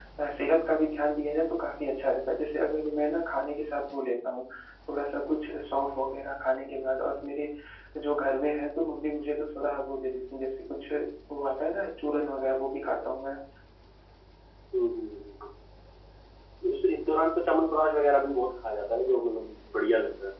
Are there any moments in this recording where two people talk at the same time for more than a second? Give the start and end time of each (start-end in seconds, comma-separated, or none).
none